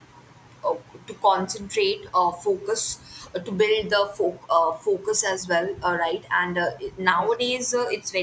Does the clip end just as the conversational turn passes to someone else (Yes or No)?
No